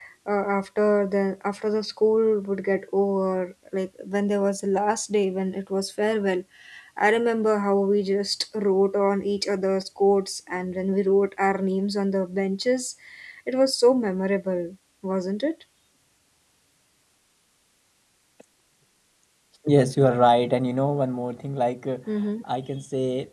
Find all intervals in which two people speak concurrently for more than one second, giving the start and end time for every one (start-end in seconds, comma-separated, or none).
none